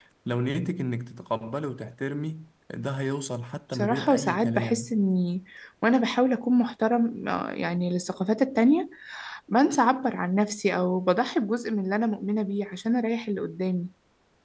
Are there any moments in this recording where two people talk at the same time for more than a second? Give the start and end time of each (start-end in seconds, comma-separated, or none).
3.7-5.0